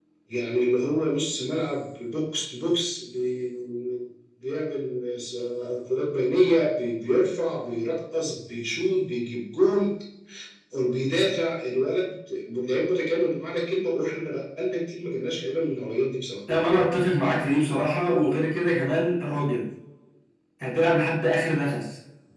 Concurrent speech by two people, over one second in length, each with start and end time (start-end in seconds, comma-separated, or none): none